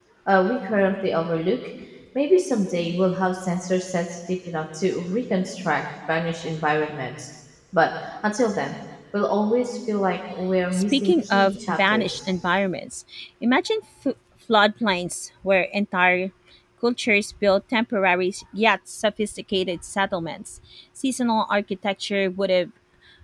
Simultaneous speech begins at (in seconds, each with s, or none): 10.7 s